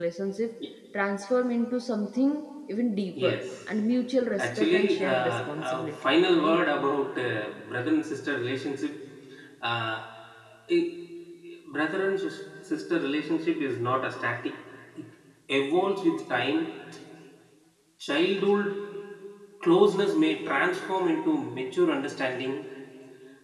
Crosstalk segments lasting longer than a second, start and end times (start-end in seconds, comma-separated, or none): 4.4-6.6